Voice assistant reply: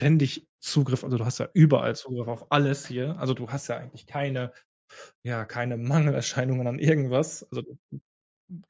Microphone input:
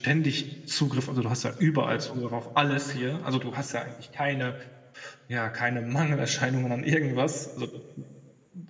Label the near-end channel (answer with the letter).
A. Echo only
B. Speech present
A